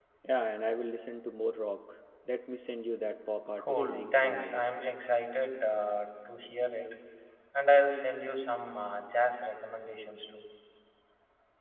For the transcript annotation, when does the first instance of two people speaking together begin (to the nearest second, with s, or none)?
4 s